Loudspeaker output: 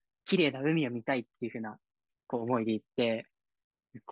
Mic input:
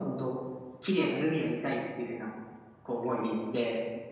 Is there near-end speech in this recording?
Yes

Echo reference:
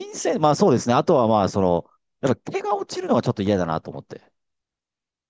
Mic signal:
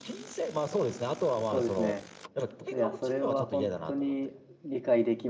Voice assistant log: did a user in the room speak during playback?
Yes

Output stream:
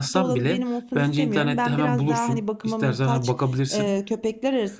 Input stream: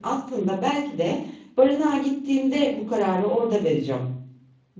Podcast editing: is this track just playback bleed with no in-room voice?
No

